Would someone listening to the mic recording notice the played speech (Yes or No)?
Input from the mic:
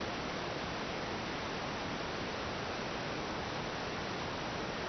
No